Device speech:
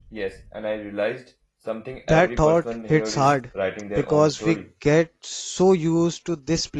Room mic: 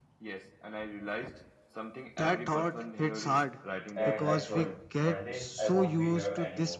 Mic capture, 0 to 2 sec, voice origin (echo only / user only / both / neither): echo only